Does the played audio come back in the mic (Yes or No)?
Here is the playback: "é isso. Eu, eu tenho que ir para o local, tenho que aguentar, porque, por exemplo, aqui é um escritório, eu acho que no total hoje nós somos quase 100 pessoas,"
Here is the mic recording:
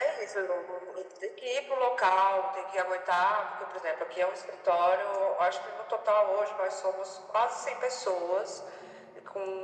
Yes